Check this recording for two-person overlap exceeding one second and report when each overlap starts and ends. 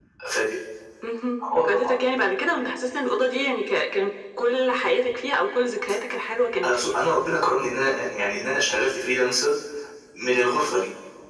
none

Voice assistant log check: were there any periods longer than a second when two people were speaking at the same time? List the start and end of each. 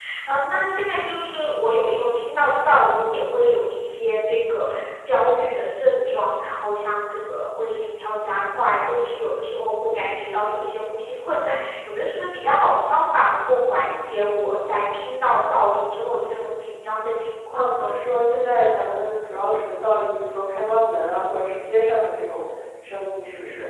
none

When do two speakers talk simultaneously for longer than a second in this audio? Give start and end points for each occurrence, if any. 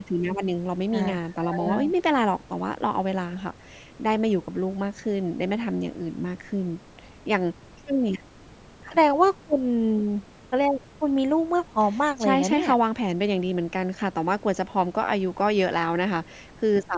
none

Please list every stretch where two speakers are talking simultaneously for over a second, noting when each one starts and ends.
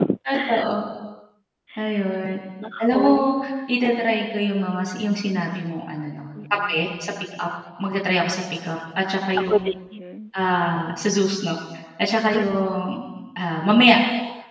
none

